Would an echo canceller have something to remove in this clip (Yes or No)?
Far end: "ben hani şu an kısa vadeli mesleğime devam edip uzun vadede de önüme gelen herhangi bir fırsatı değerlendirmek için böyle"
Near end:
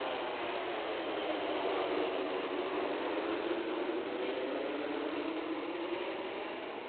No